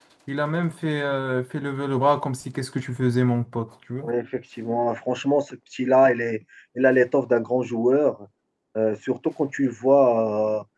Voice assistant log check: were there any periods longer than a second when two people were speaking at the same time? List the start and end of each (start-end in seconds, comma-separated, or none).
none